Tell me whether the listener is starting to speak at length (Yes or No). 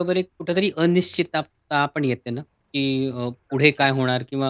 No